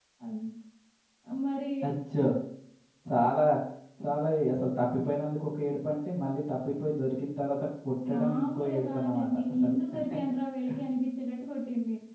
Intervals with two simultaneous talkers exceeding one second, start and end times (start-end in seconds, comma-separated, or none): 8.1-9.7